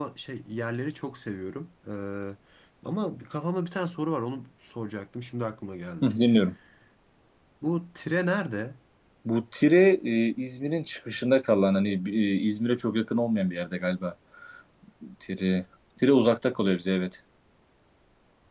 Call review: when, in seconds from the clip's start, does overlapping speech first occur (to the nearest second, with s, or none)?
none